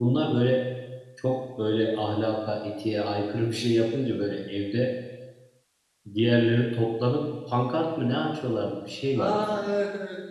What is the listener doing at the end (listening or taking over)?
taking over